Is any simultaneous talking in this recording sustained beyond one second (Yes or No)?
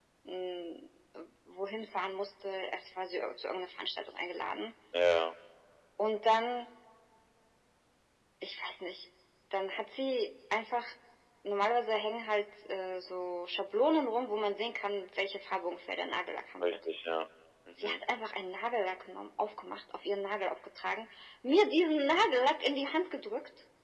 No